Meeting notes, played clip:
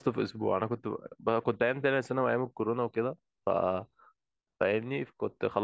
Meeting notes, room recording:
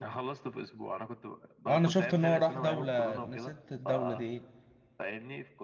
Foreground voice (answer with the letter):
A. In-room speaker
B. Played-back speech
A